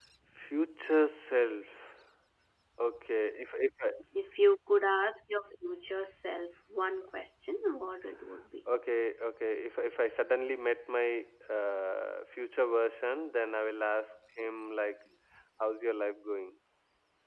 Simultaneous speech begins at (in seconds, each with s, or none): none